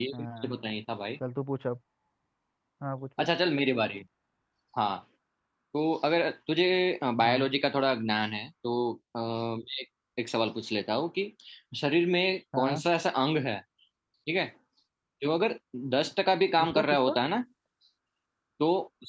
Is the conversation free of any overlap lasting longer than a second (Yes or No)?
Yes